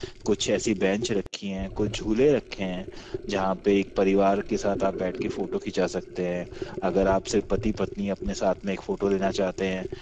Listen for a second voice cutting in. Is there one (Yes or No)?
No